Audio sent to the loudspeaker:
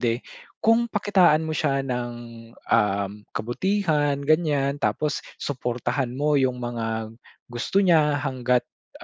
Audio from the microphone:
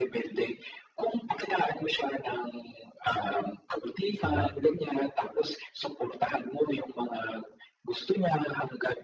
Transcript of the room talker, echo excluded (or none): Sabagay.